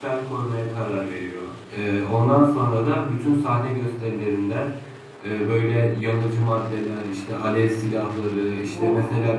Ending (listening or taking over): listening